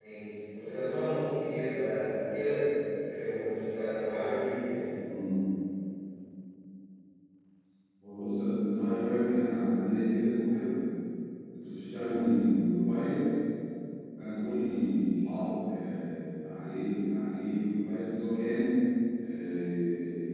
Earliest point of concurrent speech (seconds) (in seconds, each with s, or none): none